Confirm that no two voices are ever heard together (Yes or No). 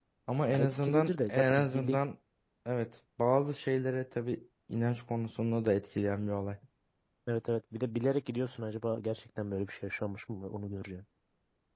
No